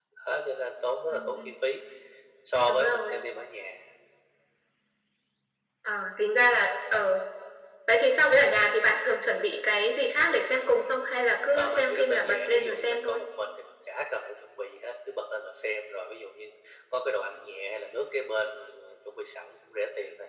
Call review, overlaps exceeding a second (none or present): present